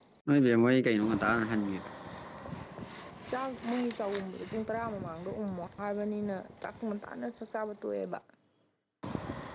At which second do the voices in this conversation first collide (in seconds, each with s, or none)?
none